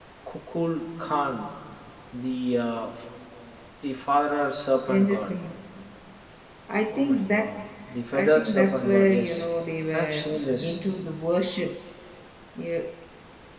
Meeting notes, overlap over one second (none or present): present